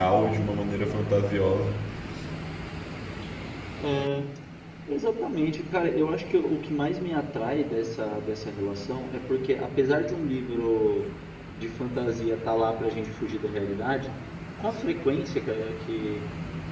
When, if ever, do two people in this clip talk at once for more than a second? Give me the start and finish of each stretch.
none

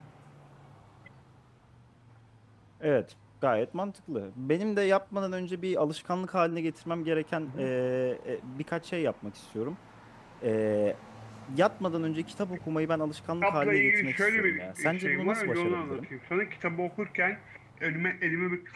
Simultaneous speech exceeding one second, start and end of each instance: 13.4-16.1

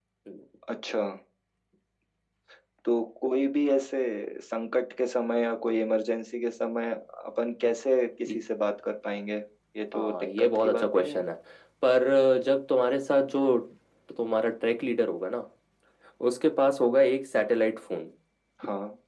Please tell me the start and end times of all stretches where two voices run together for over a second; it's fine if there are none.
9.9-11.2

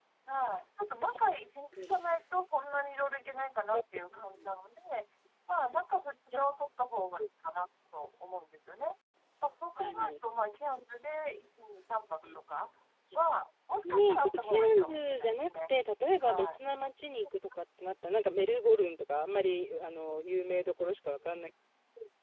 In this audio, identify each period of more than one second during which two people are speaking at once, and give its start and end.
13.9-15.7

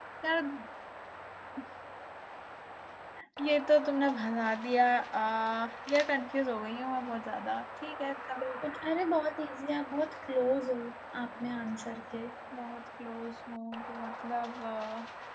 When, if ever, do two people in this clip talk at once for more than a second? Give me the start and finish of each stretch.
none

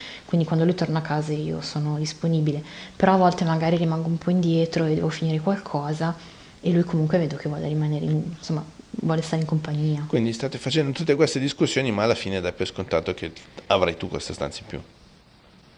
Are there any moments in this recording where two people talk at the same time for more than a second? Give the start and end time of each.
none

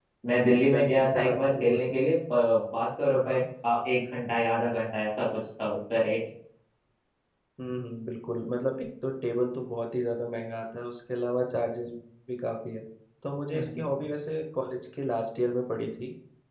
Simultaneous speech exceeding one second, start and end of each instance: 0.6-2.0

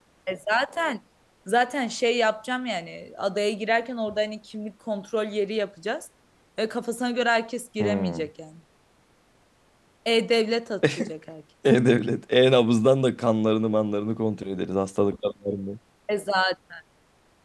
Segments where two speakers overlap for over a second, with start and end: none

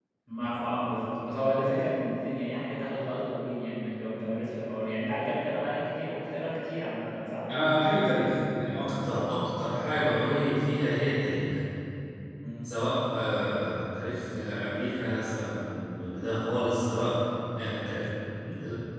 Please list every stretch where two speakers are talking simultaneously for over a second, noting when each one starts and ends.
none

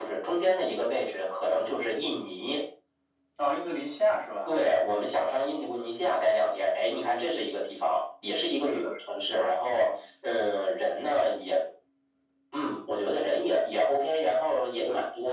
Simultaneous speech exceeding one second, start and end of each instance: 8.6-9.9

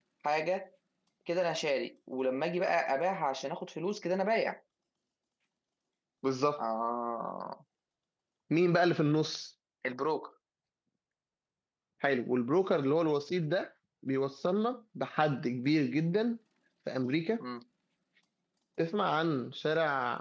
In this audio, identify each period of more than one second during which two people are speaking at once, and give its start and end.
none

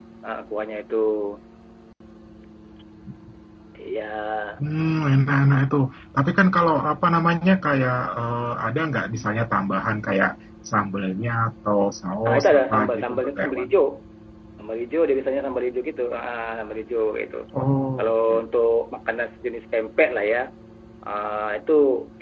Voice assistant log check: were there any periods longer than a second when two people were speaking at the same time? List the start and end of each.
12.2-13.7

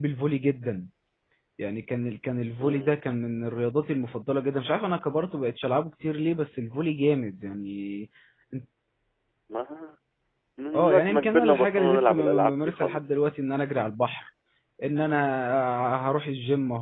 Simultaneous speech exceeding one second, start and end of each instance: 10.7-13.0

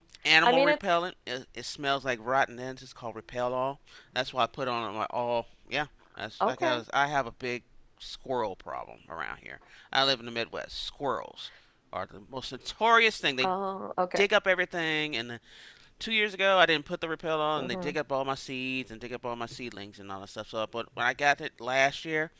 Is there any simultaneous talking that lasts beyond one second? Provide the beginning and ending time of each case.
none

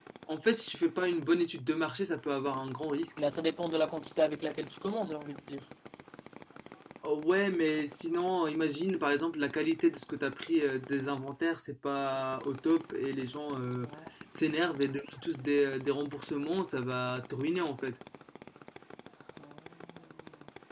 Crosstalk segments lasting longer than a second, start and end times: none

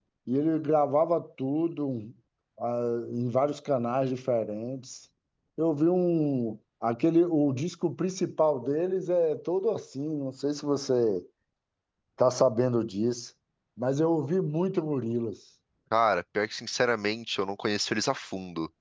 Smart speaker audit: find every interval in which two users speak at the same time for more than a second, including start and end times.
none

